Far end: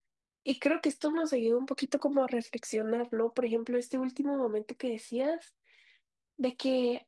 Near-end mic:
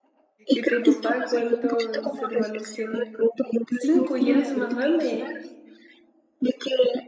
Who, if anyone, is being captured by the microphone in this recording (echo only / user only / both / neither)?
both